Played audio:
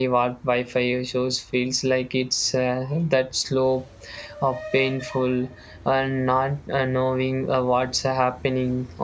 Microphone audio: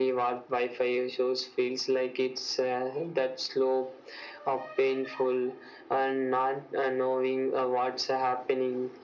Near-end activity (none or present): none